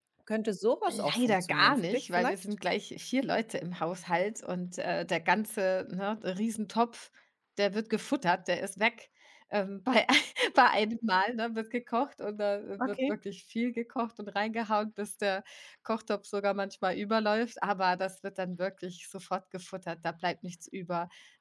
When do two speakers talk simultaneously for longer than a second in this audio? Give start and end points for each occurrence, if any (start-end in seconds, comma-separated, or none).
0.9-2.4